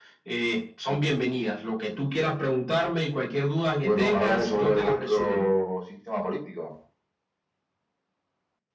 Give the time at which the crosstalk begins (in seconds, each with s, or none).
3.8 s